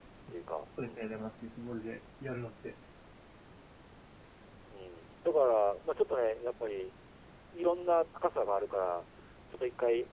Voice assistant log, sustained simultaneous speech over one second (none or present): none